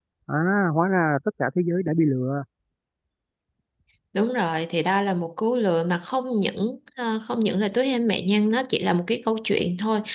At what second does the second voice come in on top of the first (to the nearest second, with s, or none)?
none